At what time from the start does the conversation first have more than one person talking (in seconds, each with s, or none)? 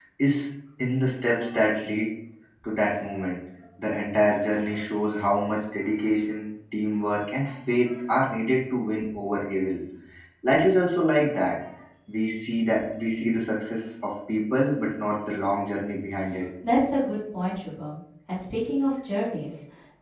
none